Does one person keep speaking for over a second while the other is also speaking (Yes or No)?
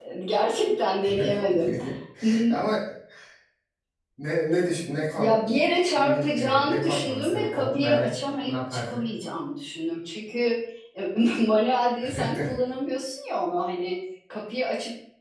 Yes